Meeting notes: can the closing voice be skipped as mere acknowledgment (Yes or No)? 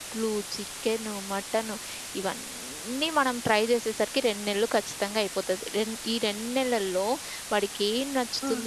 Yes